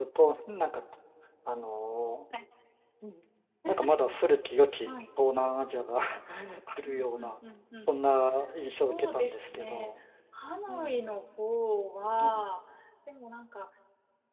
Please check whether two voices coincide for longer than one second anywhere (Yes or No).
Yes